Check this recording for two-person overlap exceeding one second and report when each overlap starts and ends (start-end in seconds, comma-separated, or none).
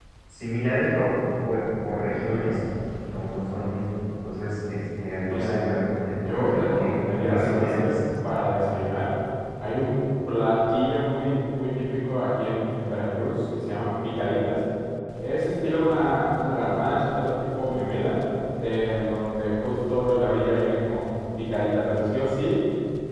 6.1-7.9